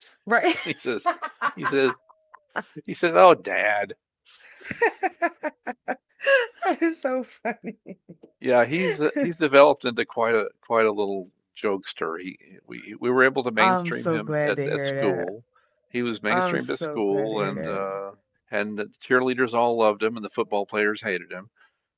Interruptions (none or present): present